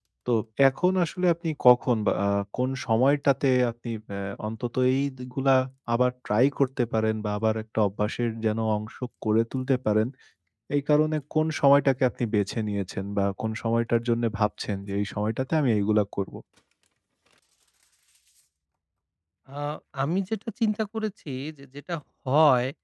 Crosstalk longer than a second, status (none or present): none